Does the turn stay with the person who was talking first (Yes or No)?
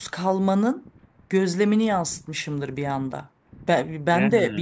Yes